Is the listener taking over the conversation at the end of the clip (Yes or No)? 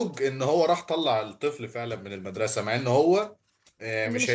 No